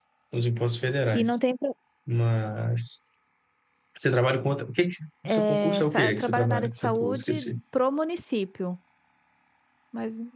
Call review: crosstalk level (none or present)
present